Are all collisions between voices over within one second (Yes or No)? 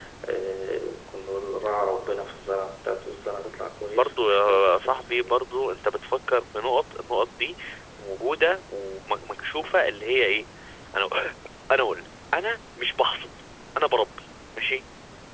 No